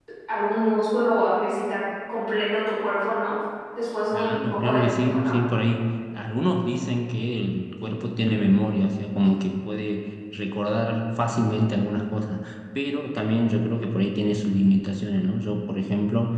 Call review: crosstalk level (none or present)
present